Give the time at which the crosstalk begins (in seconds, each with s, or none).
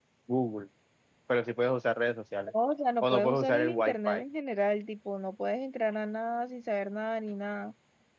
3.0 s